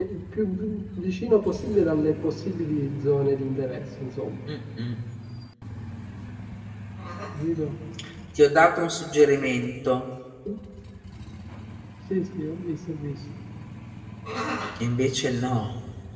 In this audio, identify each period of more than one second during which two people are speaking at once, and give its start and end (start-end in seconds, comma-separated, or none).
none